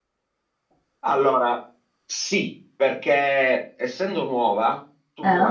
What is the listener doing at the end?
listening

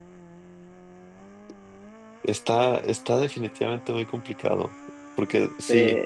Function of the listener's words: listening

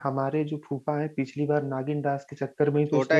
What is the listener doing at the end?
taking over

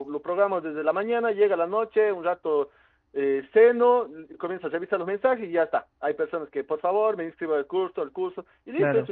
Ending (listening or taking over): listening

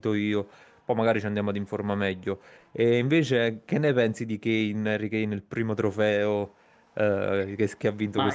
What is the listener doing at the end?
taking over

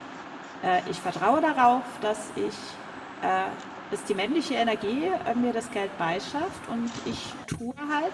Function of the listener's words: listening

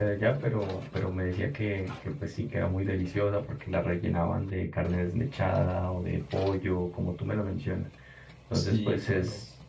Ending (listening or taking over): listening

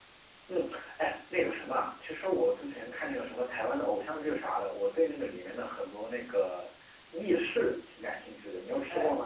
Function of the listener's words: taking over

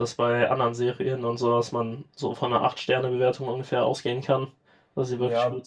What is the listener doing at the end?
taking over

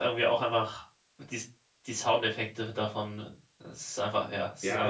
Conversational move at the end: taking over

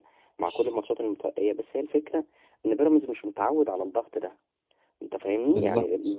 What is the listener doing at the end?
listening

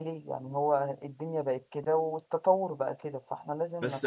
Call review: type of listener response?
taking over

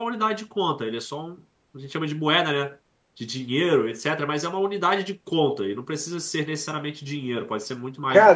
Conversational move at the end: taking over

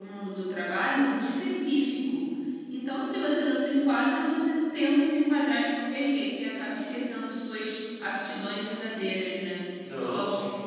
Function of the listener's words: listening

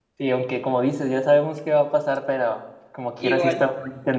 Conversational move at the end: listening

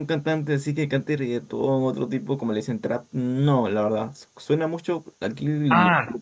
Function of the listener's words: taking over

